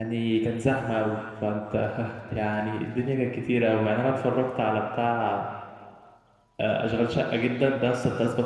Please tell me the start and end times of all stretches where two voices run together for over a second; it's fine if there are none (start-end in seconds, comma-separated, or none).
none